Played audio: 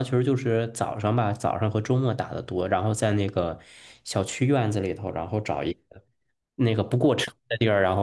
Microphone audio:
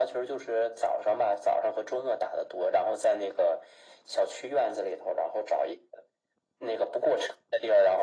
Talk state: echo only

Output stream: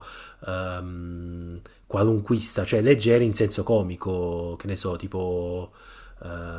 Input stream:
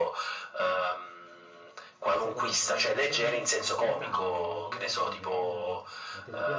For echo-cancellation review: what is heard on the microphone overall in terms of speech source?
both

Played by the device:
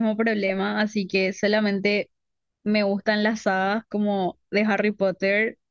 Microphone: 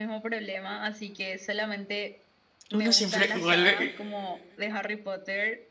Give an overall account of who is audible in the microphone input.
both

